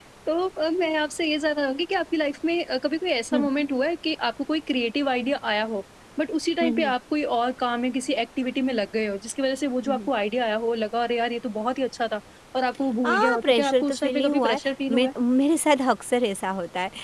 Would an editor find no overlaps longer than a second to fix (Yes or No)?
No